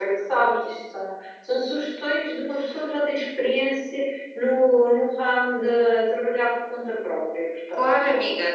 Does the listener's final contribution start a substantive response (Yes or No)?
Yes